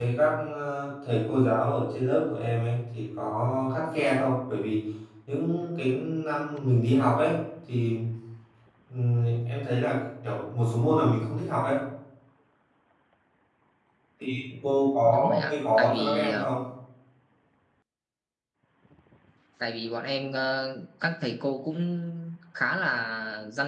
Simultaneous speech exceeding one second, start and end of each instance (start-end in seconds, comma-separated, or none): 15.0-16.5